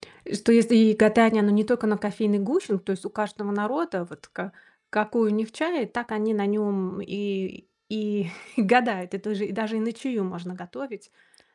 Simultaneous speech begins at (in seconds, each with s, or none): none